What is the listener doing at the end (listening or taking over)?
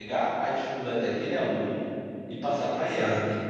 listening